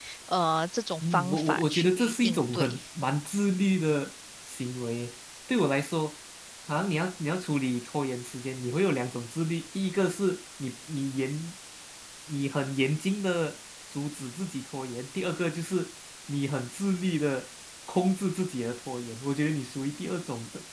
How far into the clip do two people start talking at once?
1 s

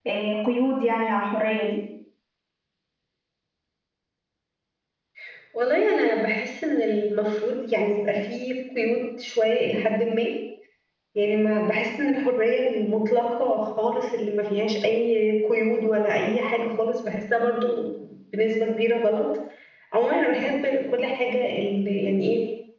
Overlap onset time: none

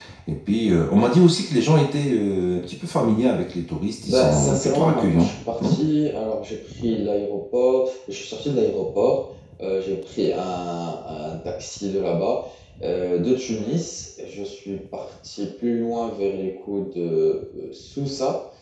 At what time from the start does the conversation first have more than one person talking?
4 s

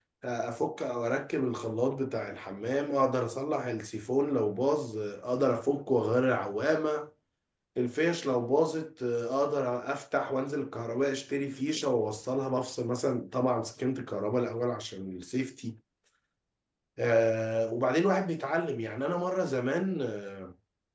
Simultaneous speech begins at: none

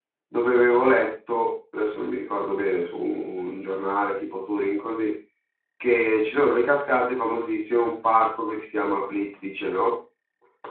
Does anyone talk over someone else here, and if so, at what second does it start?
none

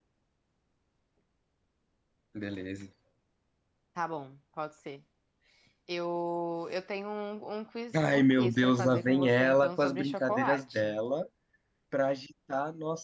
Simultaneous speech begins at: 8 s

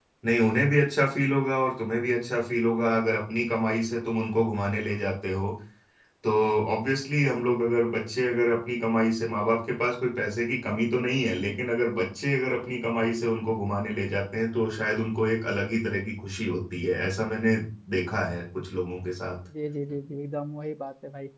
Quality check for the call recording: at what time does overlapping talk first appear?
none

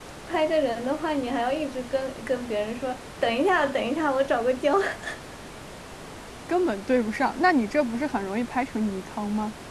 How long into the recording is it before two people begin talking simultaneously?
none

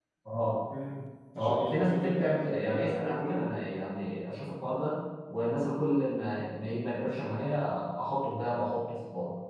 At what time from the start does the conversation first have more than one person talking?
1 s

